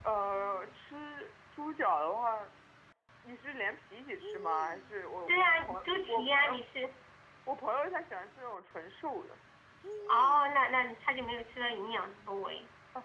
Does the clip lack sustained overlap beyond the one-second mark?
No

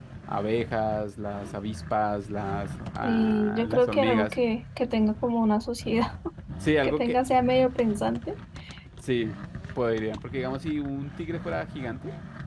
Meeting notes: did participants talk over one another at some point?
Yes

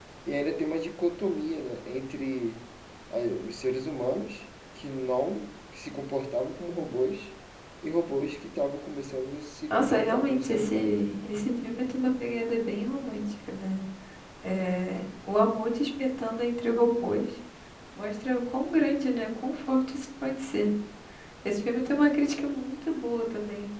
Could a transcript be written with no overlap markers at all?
No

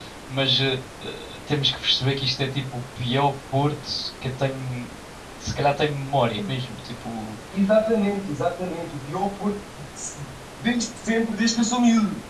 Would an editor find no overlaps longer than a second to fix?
Yes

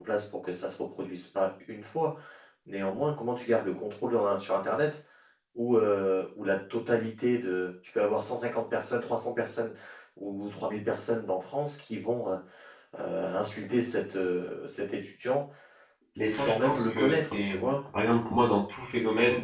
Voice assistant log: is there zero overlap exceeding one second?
No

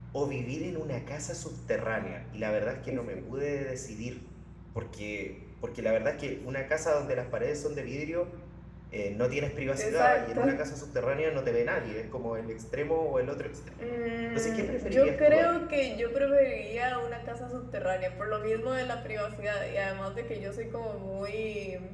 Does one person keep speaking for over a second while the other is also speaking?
Yes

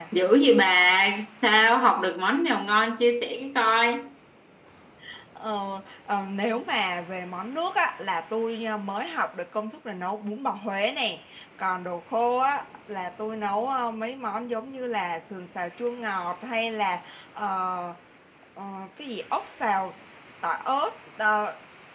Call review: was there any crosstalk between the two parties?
No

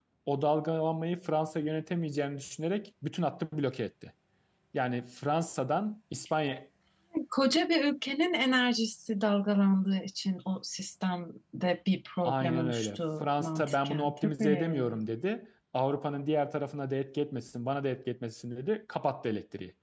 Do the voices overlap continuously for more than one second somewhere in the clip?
Yes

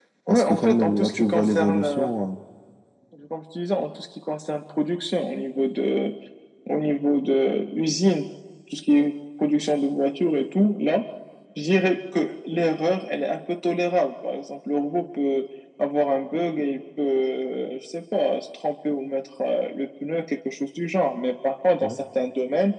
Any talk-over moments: Yes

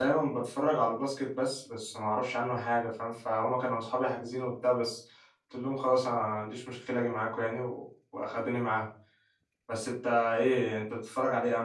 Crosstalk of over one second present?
No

